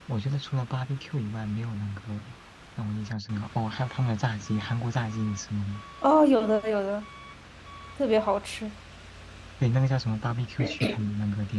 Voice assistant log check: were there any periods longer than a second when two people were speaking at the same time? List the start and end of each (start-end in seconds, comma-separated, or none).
none